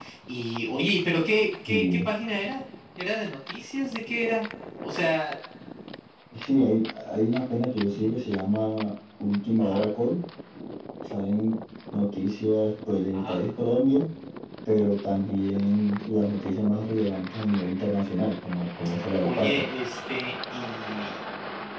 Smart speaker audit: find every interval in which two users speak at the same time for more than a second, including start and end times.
none

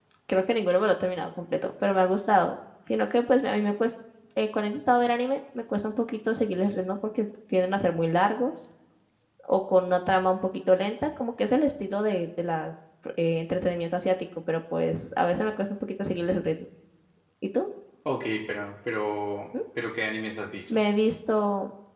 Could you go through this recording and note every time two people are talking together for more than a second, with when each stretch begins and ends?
none

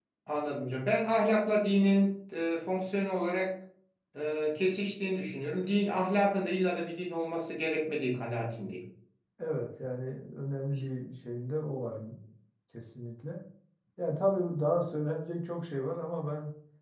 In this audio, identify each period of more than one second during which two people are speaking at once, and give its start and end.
none

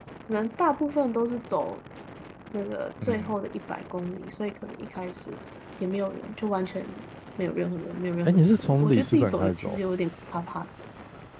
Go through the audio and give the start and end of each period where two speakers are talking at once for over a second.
8.2-9.8

